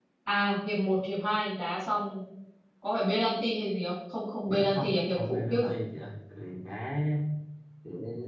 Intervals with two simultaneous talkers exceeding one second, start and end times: 4.5-5.7

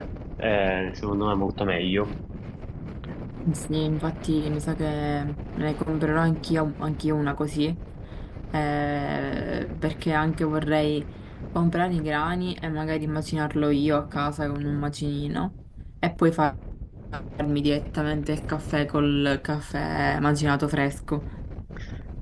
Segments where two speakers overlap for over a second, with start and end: none

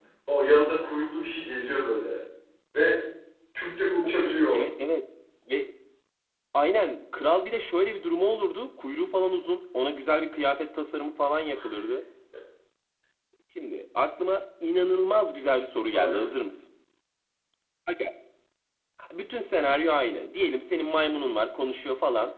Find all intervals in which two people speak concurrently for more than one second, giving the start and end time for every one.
none

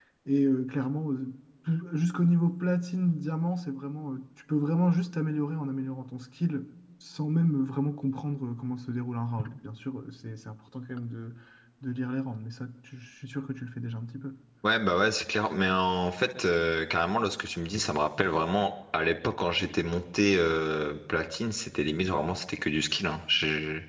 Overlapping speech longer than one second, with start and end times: none

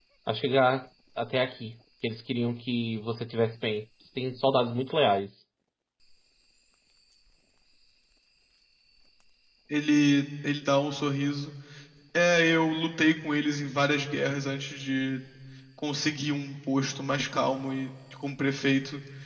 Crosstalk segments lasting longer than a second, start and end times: none

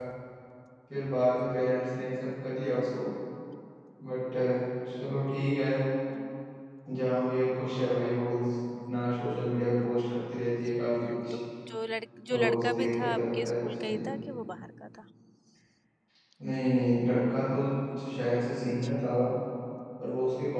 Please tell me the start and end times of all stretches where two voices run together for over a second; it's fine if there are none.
12.3-14.0

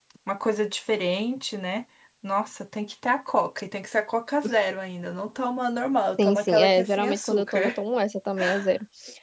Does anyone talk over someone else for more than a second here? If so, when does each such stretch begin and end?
6.2-7.7

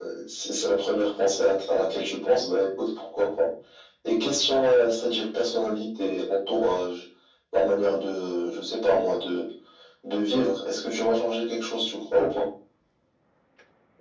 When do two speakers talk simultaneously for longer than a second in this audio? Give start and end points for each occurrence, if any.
none

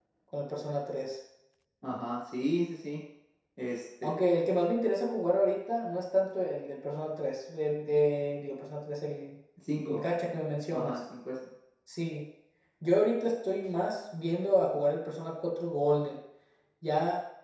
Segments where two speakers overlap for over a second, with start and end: none

